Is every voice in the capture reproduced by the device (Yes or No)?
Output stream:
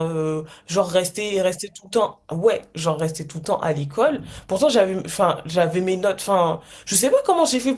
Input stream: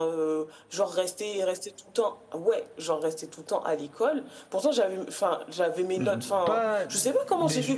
No